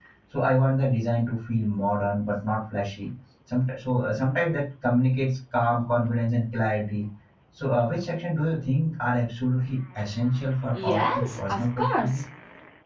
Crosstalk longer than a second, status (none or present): present